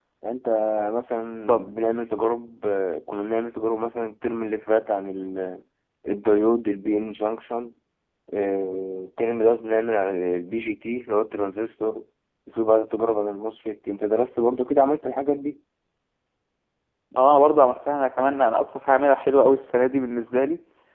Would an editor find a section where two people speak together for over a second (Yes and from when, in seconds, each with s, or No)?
No